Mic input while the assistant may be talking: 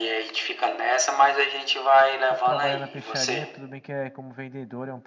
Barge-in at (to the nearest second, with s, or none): 2 s